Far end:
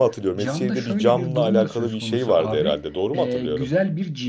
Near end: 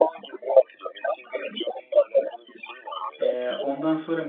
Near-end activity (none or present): present